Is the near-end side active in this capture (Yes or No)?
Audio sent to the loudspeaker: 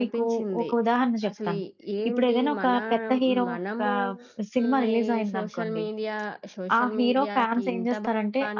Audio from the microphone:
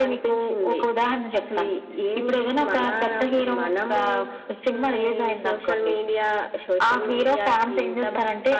Yes